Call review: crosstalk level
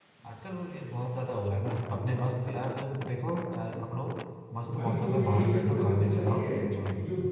present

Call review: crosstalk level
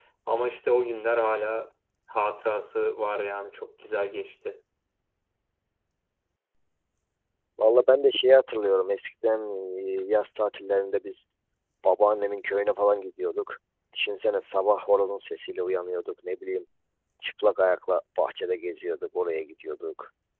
none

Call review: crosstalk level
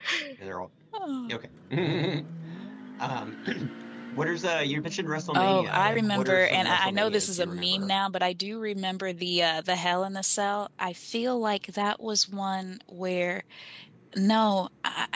present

